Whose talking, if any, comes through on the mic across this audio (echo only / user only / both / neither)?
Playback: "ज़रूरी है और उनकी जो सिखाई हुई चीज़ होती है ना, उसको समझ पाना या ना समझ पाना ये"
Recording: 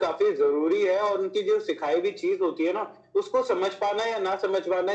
echo only